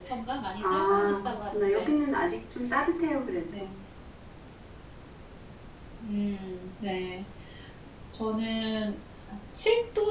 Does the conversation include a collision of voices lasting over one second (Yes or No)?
Yes